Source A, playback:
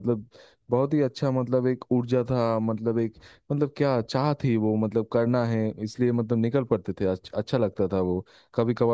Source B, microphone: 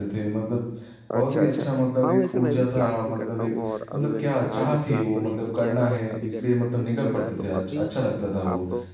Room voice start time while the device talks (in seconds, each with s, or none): 1.1 s